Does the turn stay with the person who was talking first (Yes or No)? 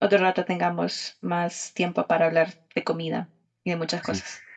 No